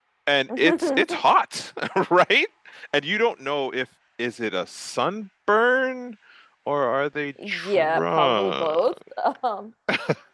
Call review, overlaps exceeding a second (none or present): present